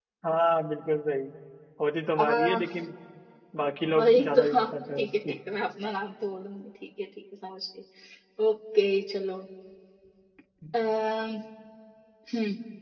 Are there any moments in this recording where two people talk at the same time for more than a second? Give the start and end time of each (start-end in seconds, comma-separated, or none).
4.0-5.4